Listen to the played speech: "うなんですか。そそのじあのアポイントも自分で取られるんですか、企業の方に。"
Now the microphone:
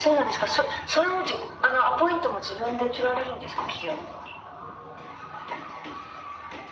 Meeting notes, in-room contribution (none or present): none